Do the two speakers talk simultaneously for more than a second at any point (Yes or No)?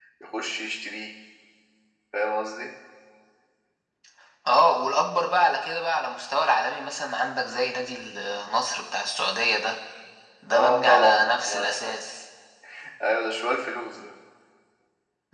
Yes